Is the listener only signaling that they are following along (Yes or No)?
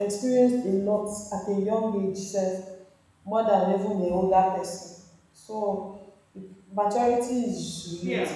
Yes